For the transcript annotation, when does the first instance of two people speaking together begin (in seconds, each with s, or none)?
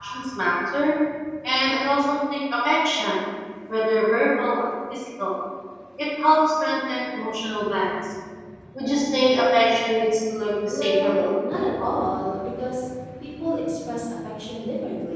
10.7 s